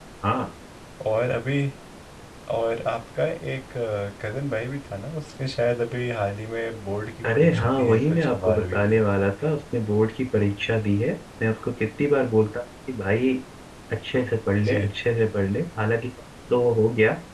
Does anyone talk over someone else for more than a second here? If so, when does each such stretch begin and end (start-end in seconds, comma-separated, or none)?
7.3-9.0